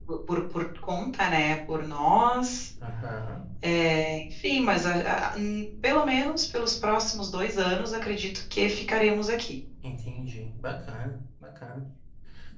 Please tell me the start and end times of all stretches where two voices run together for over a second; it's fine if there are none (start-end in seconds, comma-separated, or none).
none